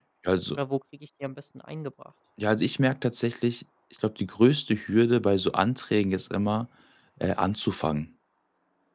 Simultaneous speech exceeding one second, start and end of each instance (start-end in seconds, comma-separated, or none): none